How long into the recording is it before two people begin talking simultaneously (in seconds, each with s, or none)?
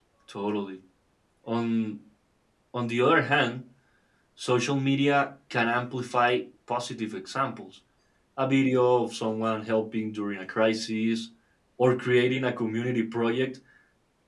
none